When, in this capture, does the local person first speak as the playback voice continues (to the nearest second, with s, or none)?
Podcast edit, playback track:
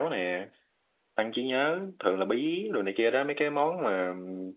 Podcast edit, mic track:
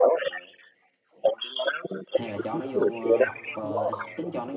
2 s